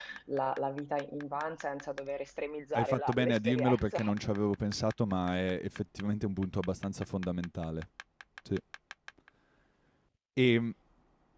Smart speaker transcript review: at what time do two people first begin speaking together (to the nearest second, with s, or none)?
3 s